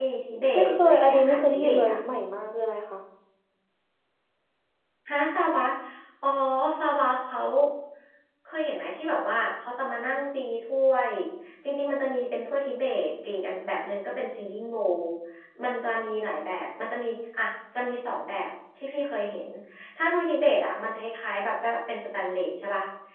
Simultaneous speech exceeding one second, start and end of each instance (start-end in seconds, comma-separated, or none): 0.5-2.0